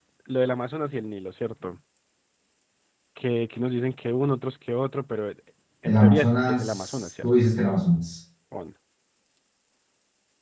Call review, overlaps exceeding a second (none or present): present